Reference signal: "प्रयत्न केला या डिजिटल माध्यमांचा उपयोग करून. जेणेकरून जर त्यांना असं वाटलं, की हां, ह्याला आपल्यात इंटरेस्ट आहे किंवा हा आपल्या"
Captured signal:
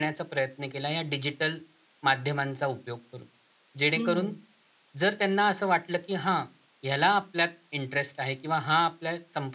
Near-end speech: present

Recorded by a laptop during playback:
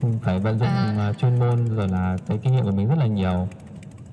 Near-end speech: present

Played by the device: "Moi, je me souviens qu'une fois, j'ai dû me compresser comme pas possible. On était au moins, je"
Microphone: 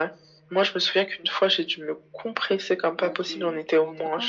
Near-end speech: present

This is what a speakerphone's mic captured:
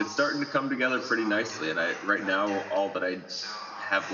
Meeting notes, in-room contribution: present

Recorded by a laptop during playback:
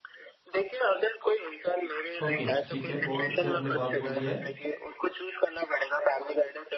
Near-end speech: present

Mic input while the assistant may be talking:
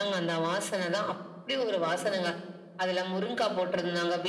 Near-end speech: none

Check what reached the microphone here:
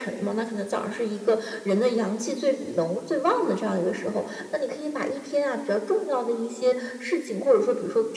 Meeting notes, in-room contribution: none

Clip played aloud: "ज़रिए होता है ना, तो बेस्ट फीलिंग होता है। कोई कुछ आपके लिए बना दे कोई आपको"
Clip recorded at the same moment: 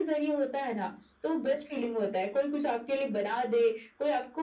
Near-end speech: none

